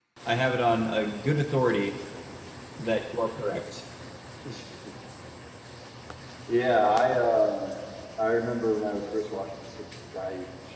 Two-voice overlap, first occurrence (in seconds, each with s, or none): none